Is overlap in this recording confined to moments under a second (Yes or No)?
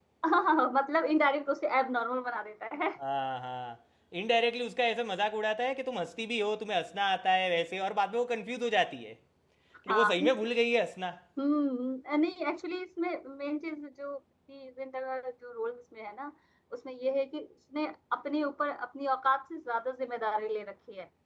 Yes